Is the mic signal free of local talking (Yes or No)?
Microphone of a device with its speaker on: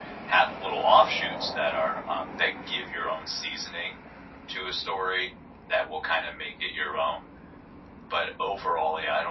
Yes